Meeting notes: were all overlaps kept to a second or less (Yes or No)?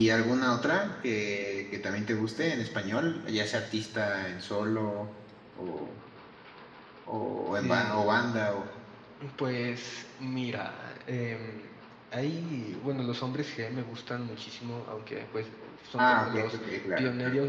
No